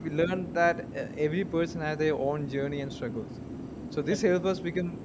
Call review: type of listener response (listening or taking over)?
listening